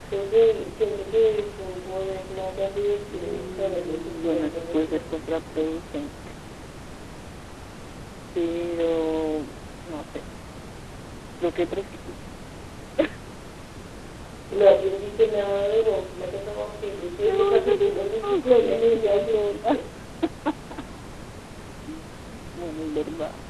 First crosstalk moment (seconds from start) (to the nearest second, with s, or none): 3 s